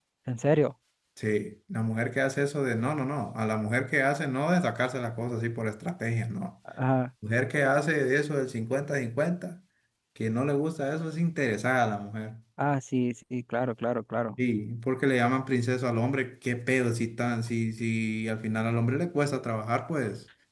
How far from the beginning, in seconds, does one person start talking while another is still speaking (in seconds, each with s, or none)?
none